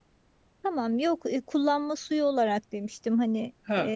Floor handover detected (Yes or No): Yes